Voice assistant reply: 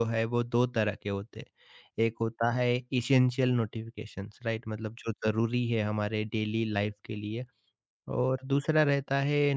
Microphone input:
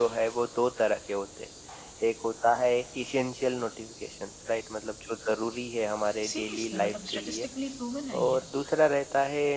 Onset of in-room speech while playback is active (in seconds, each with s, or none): 6.3 s